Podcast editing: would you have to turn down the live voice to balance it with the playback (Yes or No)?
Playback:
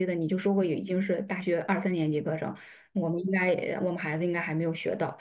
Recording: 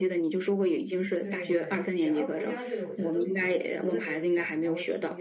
No